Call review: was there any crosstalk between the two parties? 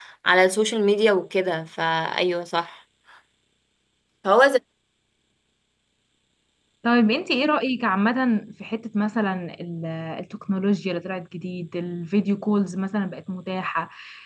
No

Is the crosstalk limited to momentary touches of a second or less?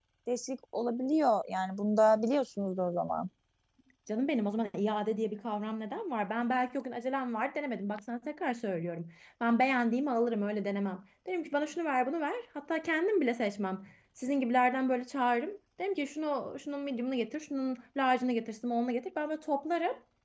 Yes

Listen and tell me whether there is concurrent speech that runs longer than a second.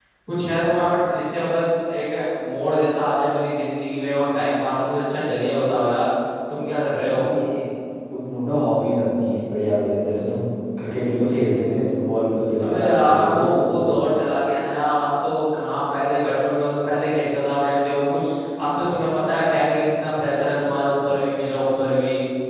Yes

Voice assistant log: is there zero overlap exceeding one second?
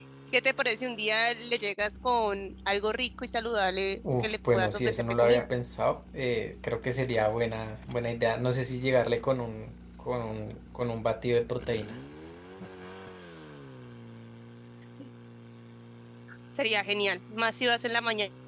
No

